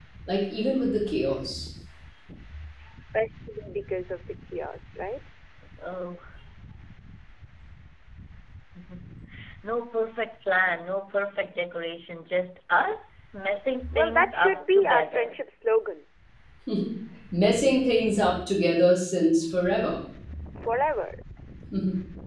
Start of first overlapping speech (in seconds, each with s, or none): 13.9 s